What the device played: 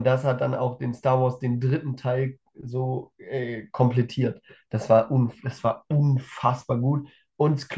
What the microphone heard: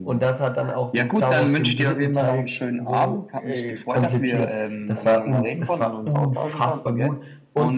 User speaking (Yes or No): Yes